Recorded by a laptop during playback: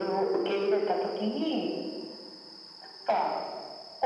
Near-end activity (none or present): none